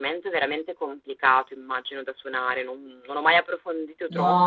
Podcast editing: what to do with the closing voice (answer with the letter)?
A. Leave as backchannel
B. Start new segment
B